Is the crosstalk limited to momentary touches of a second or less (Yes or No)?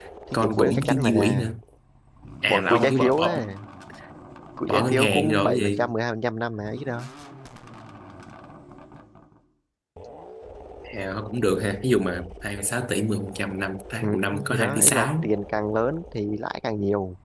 No